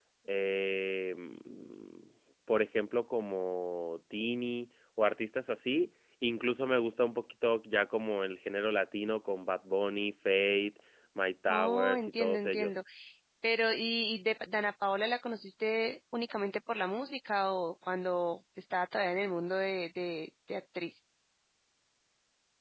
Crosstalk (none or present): present